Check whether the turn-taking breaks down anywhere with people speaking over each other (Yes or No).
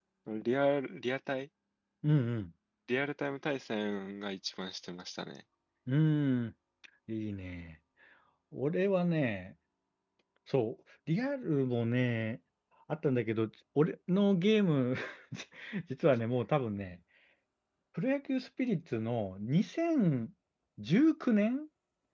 No